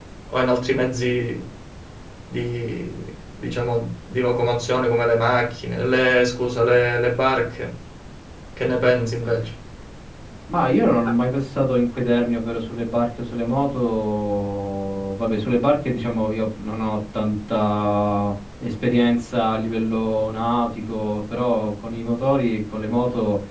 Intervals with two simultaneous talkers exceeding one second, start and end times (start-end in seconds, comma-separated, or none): none